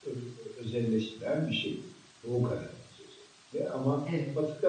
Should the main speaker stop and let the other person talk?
No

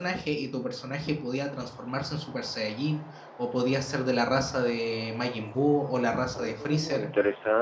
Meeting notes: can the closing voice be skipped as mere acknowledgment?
No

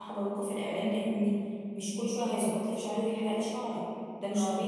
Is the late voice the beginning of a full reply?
No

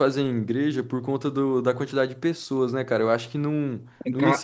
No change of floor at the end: No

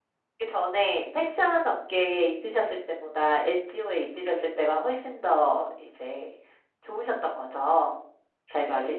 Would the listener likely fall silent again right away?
No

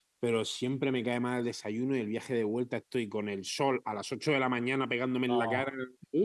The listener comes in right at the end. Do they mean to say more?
No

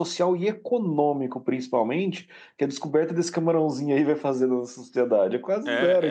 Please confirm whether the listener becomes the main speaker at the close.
Yes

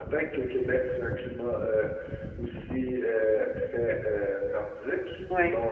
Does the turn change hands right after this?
No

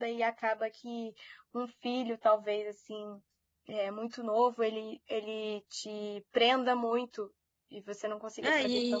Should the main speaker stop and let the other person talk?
Yes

